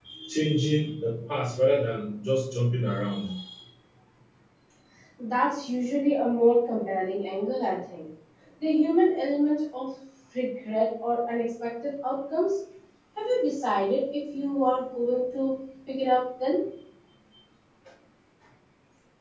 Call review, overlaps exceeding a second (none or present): none